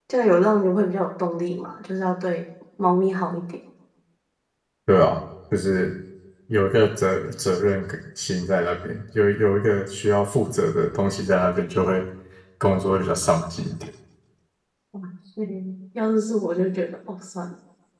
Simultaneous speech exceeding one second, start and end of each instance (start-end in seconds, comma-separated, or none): none